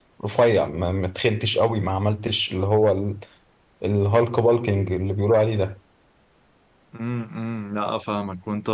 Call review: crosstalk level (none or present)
none